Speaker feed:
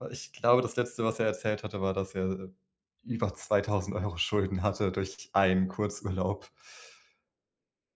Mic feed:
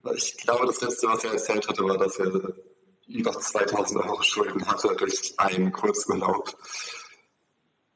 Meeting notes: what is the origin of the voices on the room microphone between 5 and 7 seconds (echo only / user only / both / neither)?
echo only